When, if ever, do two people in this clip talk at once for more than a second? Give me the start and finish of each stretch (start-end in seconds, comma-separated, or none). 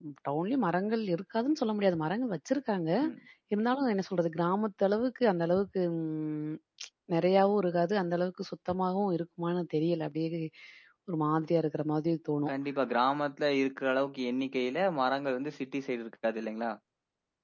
none